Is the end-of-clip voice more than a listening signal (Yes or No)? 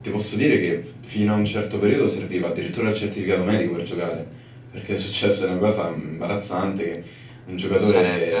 No